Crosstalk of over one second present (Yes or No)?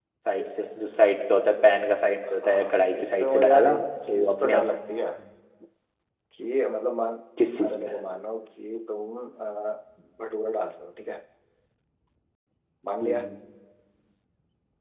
Yes